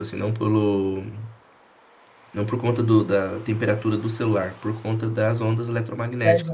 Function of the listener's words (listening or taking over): taking over